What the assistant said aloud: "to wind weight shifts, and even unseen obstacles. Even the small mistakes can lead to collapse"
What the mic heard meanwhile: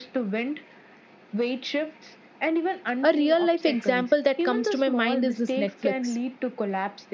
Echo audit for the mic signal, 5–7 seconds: both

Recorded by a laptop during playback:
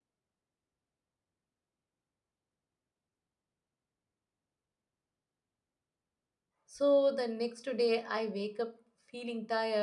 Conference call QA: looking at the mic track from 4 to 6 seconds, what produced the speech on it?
neither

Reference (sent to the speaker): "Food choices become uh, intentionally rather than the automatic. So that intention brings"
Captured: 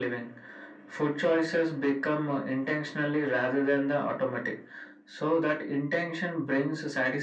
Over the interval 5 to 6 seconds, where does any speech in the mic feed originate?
echo only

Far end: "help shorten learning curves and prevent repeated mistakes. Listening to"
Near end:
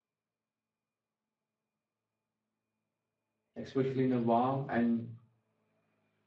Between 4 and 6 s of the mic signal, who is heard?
user only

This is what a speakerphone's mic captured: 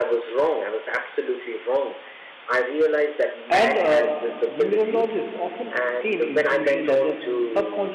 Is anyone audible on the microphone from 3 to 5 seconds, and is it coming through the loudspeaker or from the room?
both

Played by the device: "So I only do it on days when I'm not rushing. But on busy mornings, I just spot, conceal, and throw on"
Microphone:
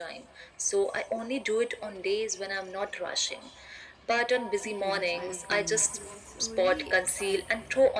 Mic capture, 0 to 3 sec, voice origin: echo only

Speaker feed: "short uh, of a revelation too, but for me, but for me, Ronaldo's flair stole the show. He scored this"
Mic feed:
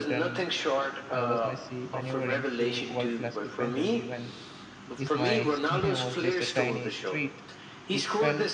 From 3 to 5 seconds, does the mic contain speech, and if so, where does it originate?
both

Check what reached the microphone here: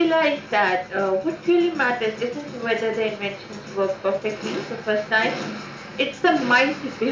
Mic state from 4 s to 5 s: echo only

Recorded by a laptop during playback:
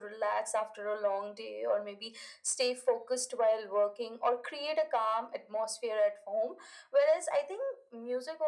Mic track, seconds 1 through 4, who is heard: echo only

